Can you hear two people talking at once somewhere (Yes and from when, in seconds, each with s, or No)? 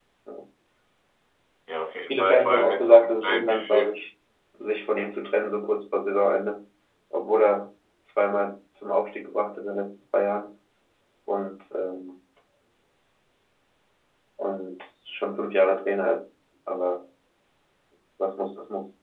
Yes, from 2.1 s